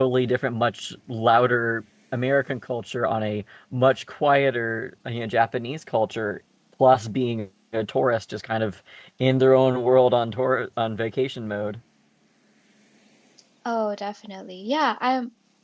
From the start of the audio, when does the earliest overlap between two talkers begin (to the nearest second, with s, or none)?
none